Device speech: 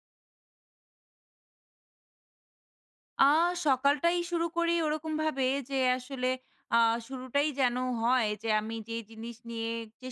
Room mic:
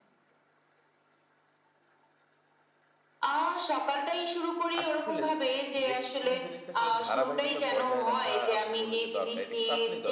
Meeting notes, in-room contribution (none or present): present